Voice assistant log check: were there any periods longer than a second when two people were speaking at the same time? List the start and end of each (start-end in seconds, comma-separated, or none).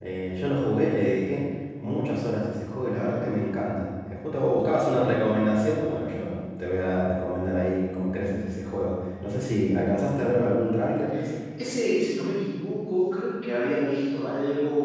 none